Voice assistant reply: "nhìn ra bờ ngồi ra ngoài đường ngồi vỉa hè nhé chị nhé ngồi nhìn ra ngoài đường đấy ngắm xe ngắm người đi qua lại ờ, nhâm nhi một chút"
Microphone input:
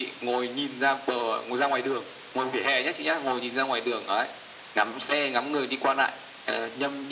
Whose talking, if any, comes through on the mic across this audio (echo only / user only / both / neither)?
echo only